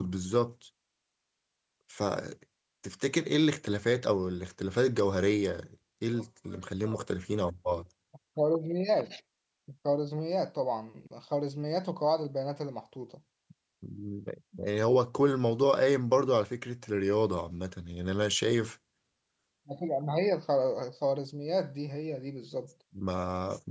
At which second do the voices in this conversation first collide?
none

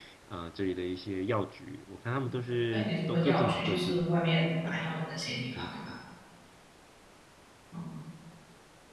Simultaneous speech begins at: 3 s

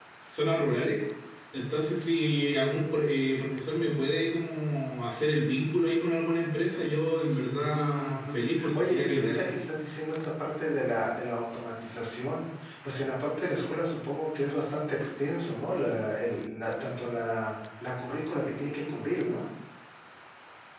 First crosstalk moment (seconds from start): 8 s

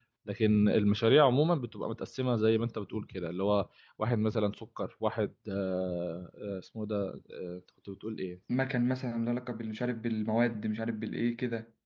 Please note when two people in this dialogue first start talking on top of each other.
none

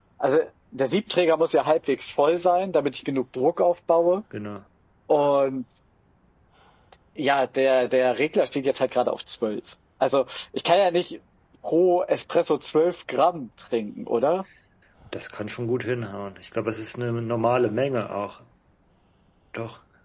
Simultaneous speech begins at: none

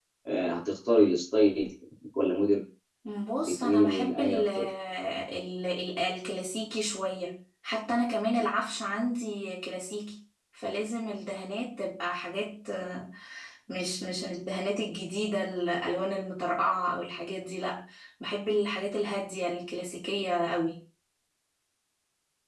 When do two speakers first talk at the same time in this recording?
3 s

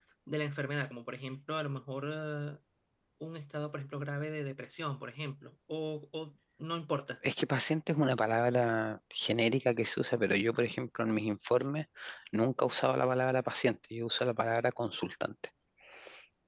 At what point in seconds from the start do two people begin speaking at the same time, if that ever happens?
none

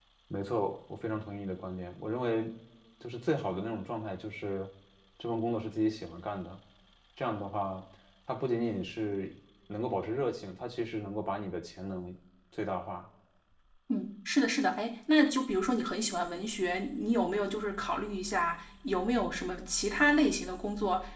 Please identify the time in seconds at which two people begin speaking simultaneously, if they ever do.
none

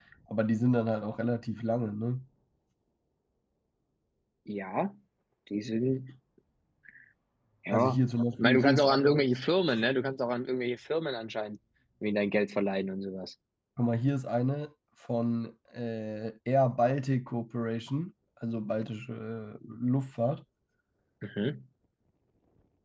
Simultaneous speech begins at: 8 s

